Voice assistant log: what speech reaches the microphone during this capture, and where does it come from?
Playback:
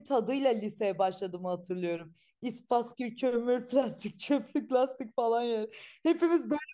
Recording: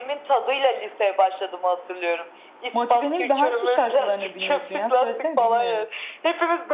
both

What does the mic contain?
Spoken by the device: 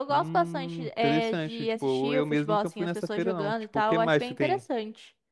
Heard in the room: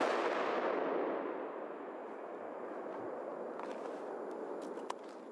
neither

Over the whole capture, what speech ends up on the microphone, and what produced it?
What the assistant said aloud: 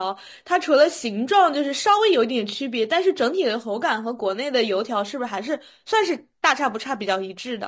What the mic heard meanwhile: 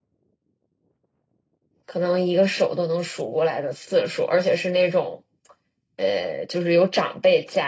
user only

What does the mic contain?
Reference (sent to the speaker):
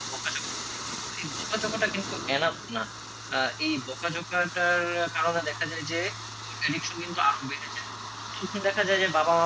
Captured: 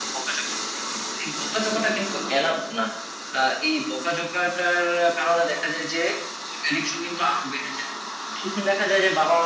echo only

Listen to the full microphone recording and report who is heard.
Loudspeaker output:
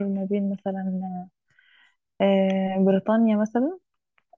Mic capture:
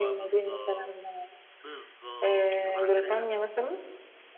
both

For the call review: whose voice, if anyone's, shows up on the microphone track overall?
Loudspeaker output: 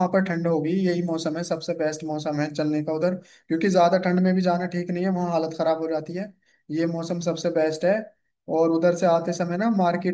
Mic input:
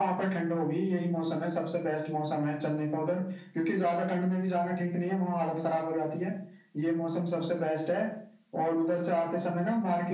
echo only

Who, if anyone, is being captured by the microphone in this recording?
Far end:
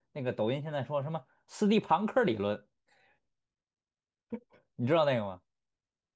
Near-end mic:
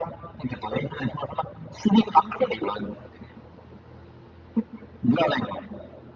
echo only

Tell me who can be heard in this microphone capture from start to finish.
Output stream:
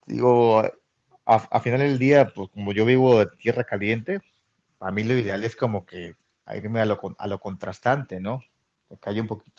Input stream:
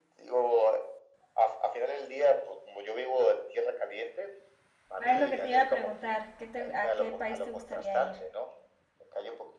both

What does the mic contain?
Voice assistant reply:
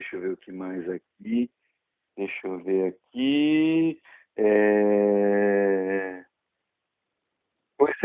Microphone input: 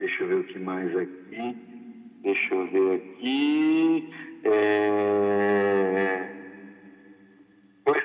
echo only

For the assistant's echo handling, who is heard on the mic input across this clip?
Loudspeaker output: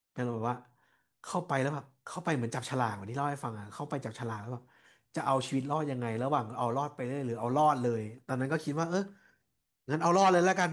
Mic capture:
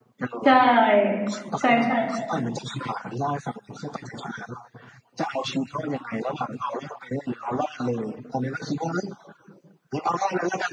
both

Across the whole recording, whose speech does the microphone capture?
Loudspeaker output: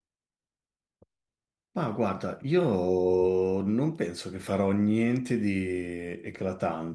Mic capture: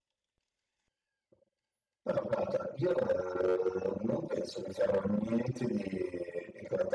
echo only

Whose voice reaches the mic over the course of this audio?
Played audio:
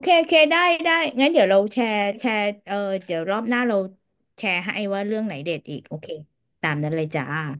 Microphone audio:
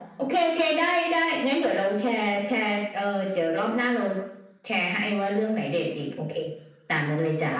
echo only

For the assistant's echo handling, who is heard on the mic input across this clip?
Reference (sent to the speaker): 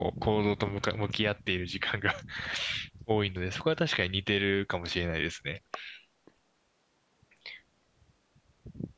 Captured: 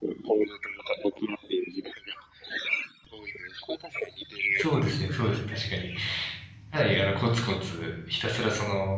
both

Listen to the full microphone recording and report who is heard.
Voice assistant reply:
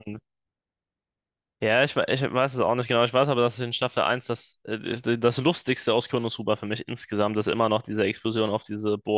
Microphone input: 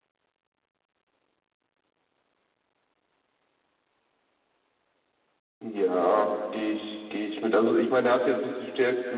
user only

